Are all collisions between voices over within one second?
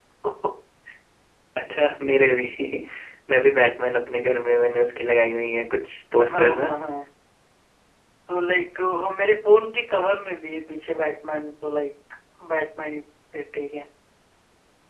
Yes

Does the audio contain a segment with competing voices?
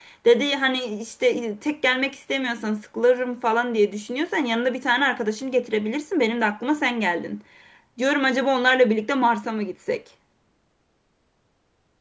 No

